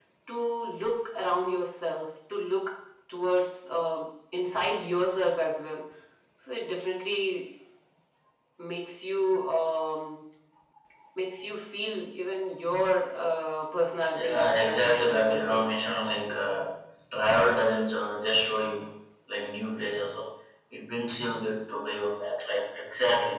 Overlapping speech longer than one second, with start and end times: 14.2-15.6

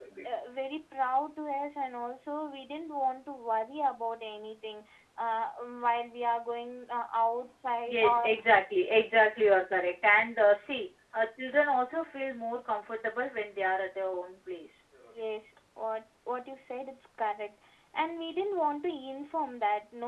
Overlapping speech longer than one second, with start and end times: none

